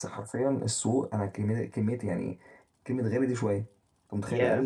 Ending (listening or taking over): listening